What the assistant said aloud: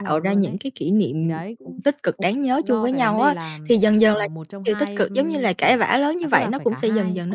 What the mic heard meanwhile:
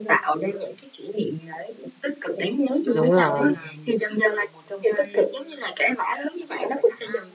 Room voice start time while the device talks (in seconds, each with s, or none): 2.9 s